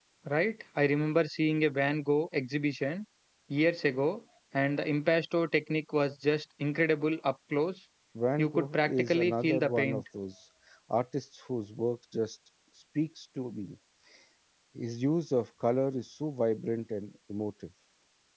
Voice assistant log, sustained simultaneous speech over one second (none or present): present